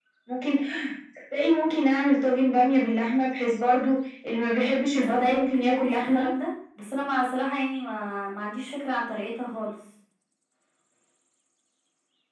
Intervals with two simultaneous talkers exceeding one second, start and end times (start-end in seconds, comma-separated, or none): 5.0-6.3